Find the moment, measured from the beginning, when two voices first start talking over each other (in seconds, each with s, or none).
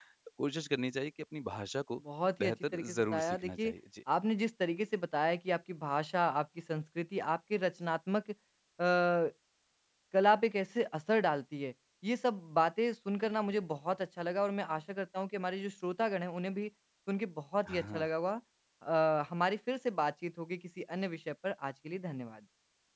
2.4 s